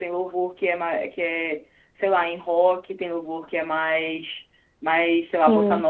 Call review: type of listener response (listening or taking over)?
listening